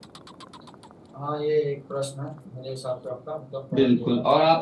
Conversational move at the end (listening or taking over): taking over